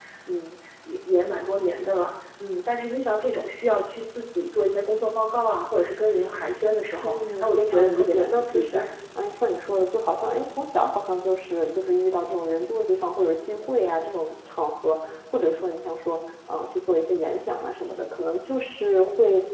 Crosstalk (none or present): present